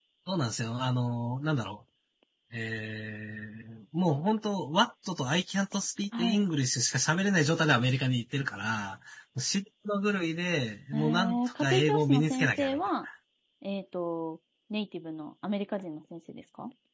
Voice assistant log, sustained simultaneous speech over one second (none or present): present